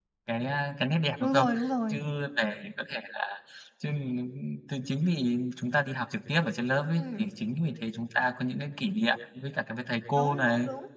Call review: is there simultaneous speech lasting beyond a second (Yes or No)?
No